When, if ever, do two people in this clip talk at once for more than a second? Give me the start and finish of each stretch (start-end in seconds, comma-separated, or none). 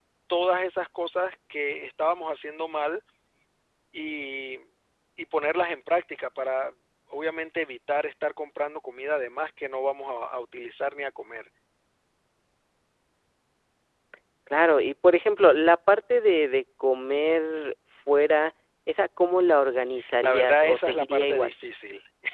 20.2-21.5